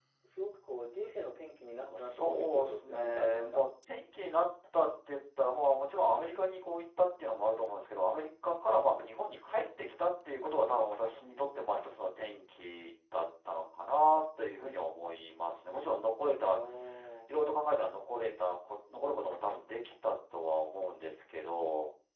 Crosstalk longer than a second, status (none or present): present